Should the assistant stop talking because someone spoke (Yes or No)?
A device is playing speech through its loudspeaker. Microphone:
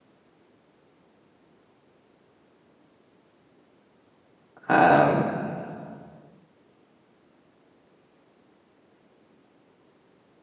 Yes